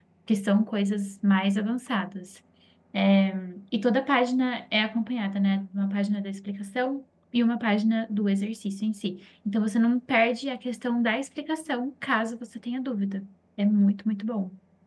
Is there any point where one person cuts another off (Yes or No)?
No